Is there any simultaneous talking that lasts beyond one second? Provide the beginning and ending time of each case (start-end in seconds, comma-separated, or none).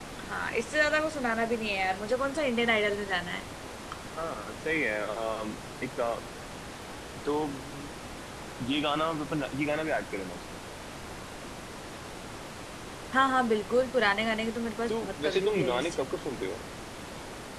14.9-16.1